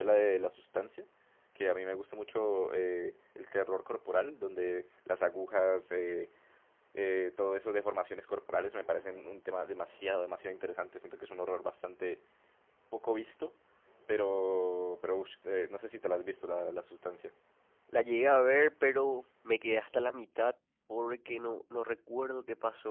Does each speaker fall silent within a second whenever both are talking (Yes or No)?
Yes